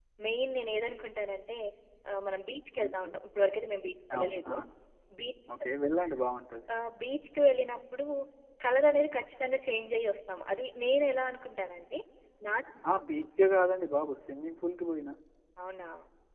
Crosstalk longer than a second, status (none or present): none